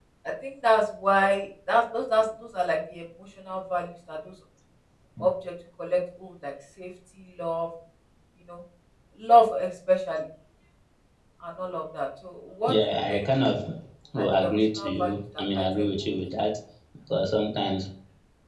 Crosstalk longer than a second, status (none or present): present